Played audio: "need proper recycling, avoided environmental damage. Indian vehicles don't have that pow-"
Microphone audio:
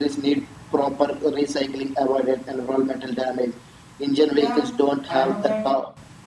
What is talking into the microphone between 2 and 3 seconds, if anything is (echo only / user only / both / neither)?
echo only